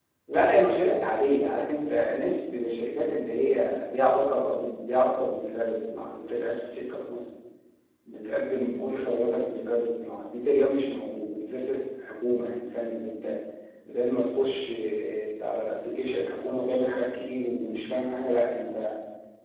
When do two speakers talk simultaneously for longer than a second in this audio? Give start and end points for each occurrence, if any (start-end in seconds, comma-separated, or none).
none